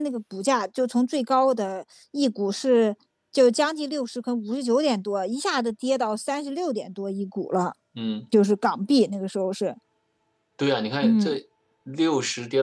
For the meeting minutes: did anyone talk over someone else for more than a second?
No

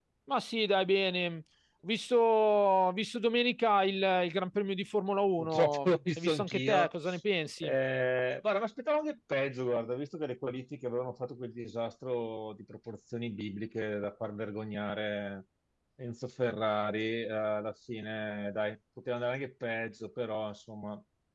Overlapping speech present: Yes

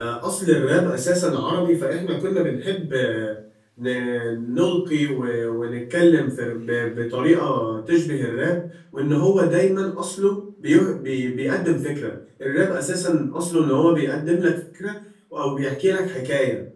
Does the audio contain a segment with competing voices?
No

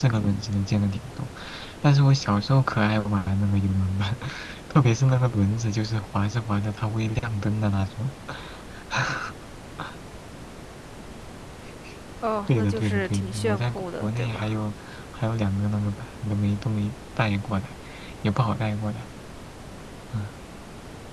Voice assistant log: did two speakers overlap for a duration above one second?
Yes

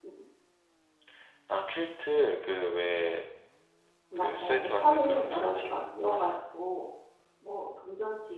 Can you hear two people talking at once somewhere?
Yes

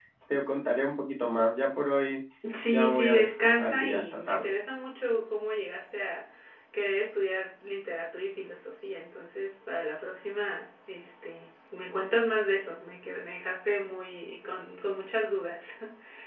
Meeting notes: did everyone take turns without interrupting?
No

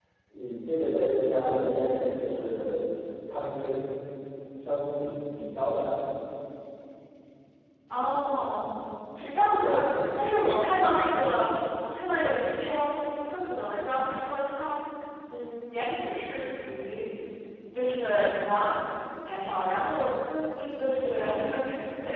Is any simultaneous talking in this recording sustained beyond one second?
No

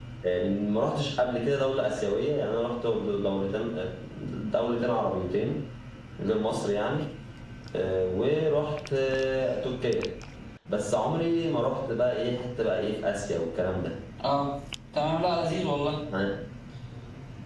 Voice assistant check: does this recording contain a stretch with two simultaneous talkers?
No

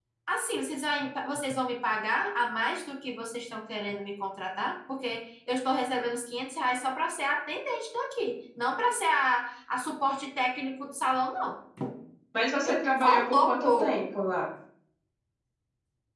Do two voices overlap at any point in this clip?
Yes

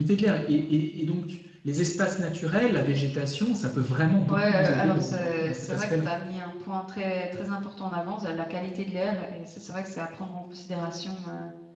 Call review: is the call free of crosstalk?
No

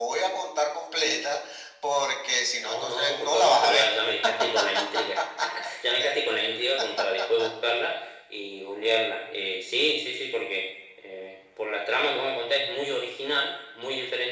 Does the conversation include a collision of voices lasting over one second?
Yes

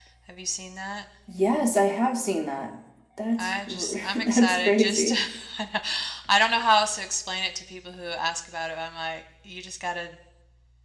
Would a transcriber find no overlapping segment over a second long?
No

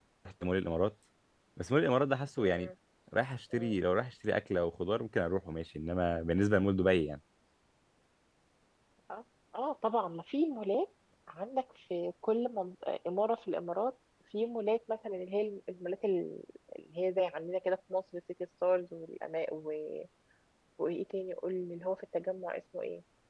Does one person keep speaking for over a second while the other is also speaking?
No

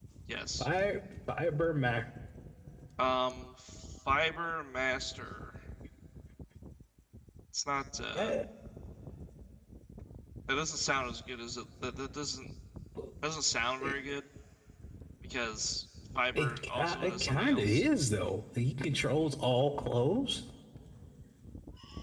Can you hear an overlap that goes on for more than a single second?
Yes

